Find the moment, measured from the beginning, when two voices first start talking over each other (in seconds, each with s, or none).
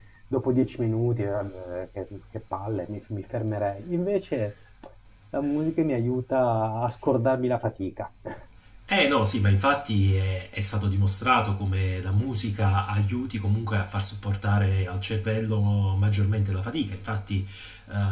none